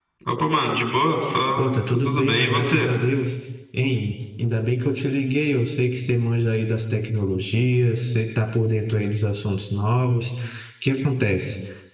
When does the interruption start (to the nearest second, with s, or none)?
2 s